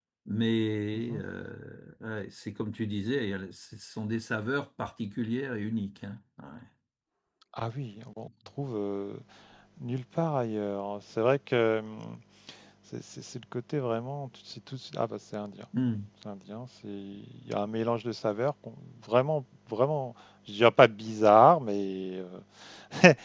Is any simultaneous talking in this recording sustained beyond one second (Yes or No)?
No